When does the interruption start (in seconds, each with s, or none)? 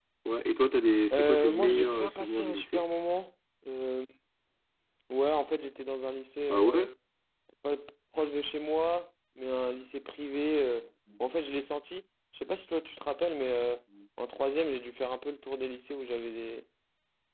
1.1 s